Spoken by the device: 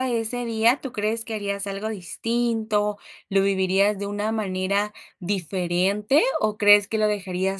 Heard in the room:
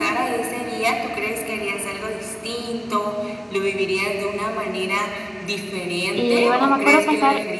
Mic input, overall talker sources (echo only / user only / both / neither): both